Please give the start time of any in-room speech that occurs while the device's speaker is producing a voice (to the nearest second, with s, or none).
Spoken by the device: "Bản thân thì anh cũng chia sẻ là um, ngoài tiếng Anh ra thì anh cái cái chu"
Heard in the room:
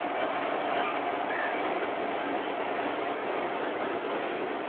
none